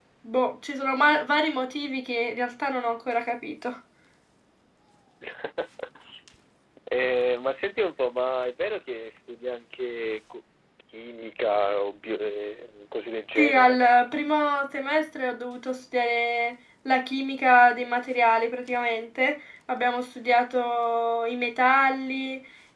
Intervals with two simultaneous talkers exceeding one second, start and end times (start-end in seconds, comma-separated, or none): none